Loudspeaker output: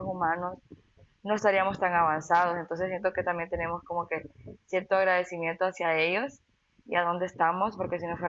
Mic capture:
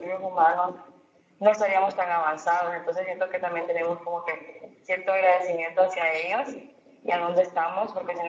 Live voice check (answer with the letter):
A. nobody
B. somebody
A